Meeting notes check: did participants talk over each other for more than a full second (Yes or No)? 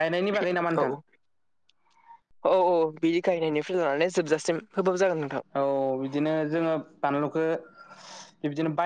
No